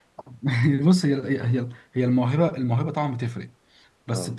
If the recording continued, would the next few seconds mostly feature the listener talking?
No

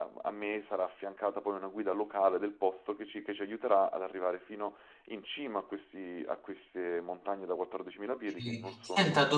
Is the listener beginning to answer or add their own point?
Yes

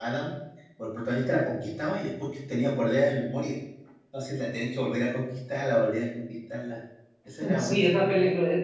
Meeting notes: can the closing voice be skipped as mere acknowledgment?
No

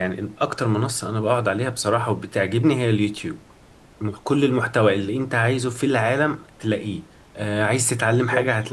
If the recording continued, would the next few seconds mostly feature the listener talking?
No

